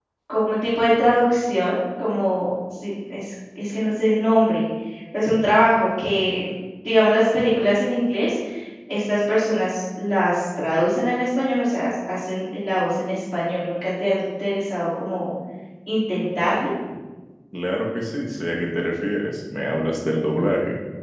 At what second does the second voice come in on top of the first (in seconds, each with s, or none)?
none